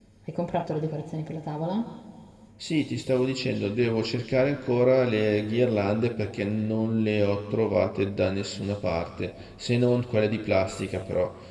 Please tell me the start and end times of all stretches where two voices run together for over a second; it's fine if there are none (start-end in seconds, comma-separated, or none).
none